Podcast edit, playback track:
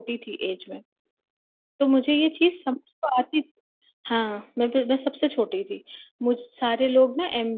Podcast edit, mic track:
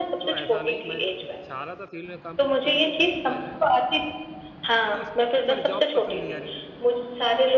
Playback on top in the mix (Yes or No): Yes